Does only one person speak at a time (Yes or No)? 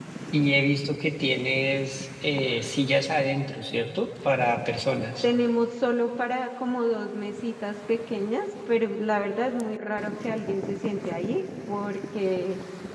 Yes